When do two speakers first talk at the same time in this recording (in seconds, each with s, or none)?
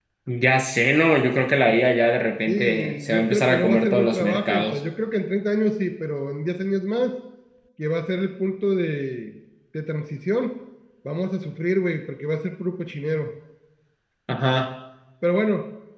2.5 s